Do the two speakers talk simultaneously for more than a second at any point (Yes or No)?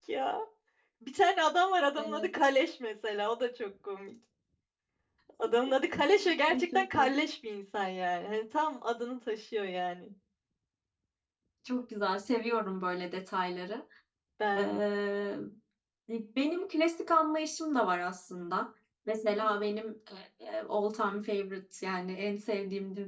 No